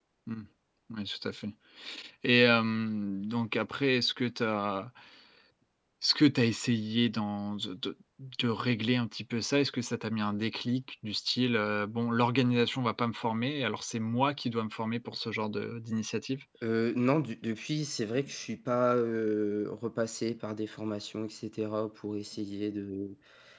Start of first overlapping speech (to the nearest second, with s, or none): none